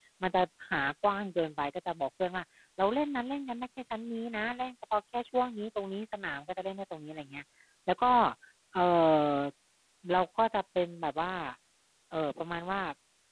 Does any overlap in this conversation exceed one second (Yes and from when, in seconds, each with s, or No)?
No